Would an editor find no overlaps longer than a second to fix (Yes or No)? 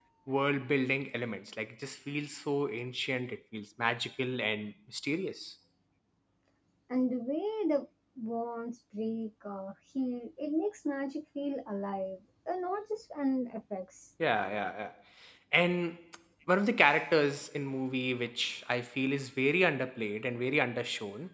Yes